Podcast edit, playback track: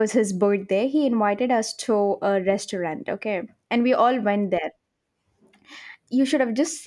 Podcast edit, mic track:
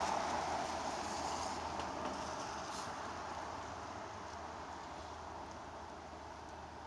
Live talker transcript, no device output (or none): none